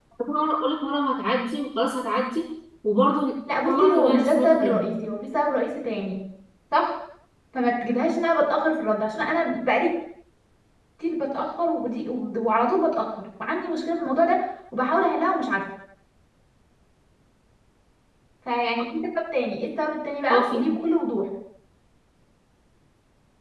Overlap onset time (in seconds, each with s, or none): 3.6 s